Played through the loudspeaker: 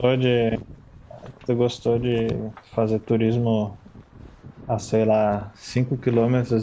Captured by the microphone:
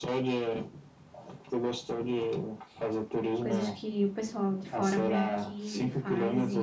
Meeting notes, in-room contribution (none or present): present